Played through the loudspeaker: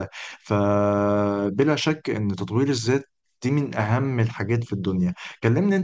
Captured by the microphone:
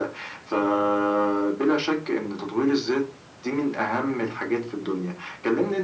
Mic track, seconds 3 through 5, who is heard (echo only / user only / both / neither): echo only